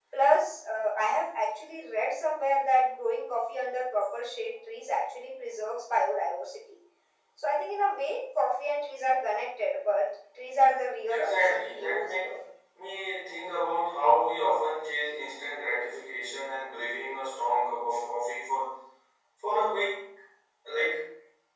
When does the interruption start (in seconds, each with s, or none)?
11.1 s